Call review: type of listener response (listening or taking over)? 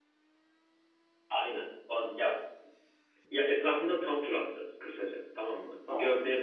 listening